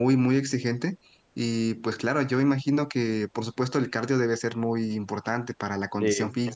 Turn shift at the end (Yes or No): No